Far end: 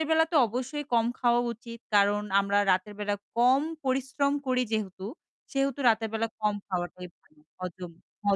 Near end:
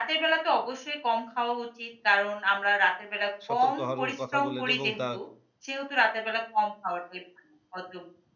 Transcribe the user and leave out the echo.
সতর্ক হওয়ারও কথা বললেন, এবং দা

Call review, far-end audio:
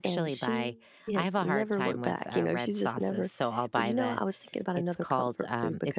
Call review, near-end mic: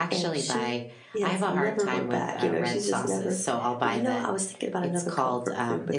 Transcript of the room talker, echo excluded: none

